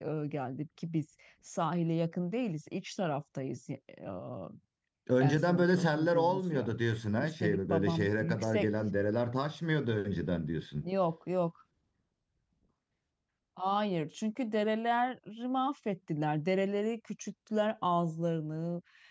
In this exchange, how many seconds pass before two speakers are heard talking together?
5 s

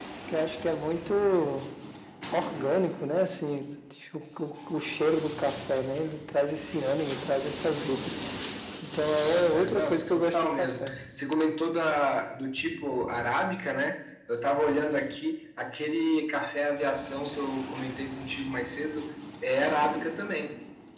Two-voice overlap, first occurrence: 9 s

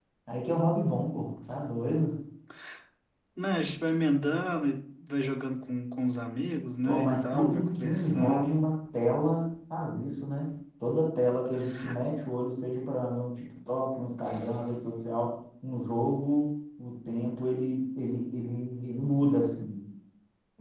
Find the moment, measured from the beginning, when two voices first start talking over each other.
7 s

